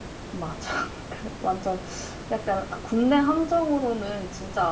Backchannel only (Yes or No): Yes